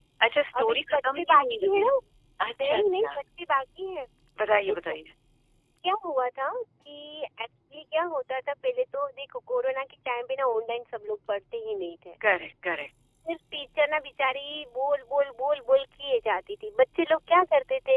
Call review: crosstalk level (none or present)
present